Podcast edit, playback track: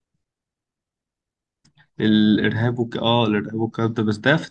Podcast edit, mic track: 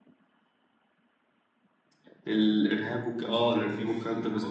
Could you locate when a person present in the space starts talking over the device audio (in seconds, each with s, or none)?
3.2 s